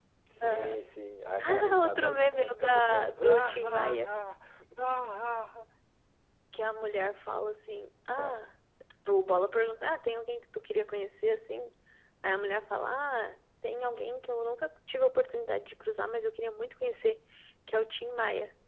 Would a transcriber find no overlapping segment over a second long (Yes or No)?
No